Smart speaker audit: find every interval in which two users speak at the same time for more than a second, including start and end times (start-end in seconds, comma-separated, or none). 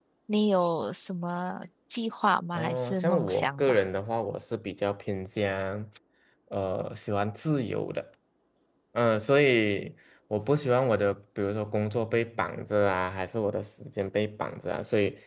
2.5-3.8